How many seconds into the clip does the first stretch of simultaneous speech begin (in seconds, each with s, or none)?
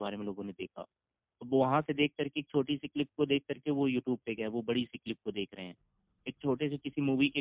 none